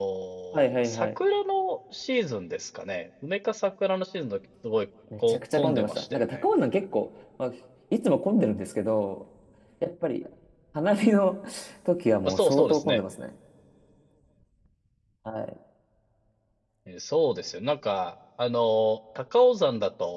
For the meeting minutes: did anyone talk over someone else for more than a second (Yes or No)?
Yes